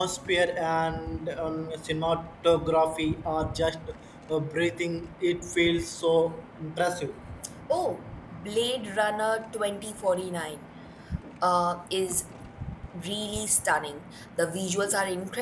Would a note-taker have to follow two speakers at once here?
No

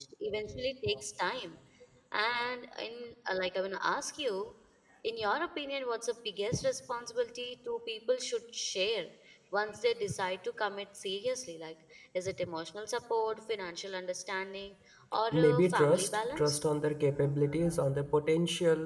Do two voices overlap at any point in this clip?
Yes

